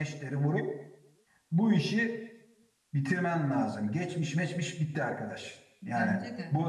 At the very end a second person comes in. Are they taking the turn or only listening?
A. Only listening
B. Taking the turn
A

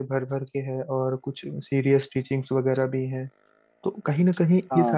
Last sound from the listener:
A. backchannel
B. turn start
A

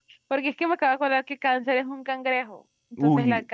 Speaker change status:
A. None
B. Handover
B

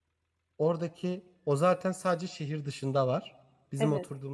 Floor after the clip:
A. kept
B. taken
A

